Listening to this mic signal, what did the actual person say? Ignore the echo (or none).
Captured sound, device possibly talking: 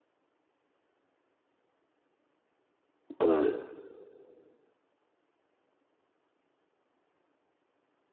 But